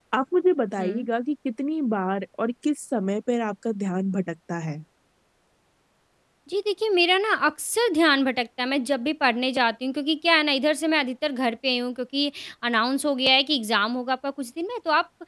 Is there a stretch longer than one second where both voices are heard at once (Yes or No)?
No